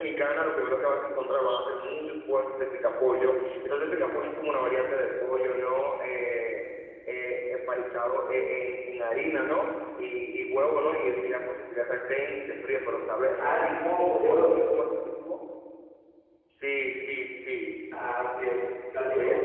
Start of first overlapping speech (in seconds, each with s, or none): 13.4 s